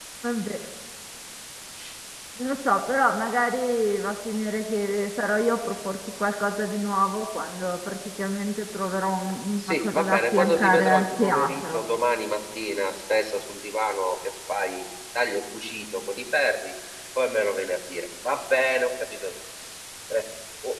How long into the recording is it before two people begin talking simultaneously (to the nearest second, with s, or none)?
10 s